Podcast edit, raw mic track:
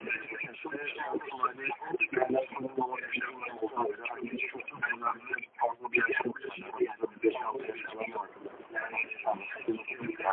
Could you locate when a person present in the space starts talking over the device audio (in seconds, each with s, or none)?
none